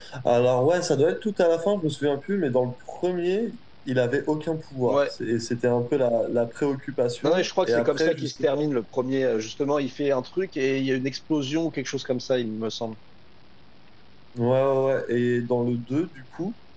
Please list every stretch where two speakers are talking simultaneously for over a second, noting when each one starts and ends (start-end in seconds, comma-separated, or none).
7.2-8.7